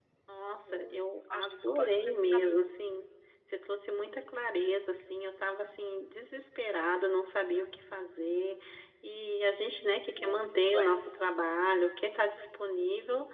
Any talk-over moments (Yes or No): Yes